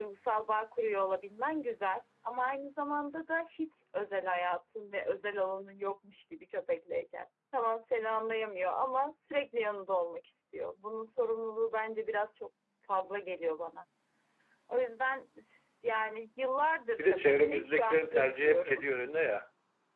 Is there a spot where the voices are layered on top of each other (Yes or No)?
Yes